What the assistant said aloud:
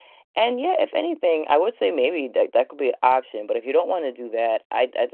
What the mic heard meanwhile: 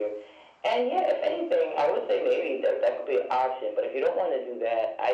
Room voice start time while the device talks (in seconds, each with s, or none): none